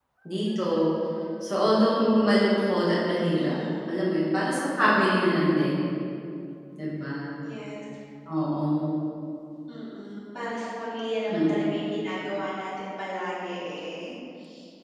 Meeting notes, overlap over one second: none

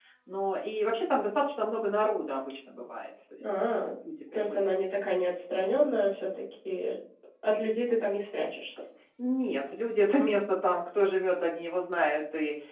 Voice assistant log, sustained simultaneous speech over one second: none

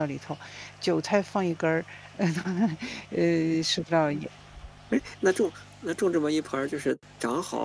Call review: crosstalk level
none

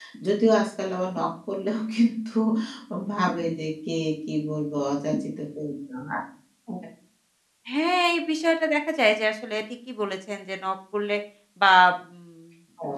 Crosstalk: none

